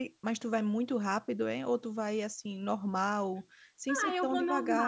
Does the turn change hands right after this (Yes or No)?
Yes